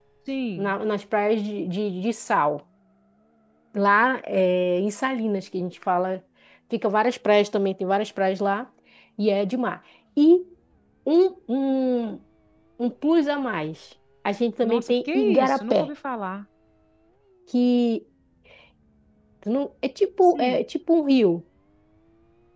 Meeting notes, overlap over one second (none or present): present